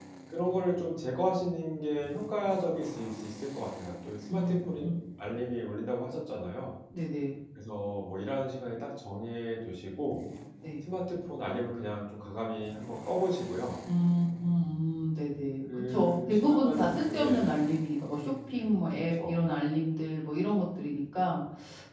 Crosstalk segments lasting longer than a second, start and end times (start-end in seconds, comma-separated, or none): 15.7-17.6